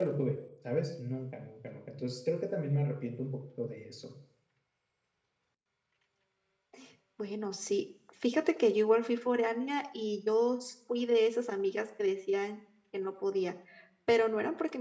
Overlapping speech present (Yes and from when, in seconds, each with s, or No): No